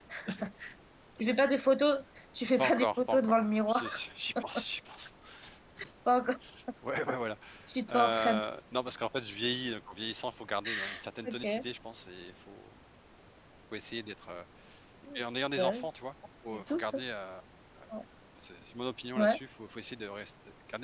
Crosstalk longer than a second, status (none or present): present